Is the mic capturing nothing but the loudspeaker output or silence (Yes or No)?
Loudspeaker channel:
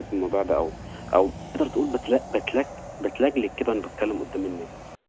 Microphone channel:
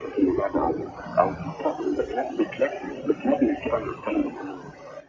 Yes